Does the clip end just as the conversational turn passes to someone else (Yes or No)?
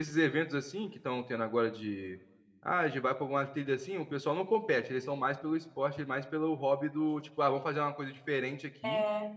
No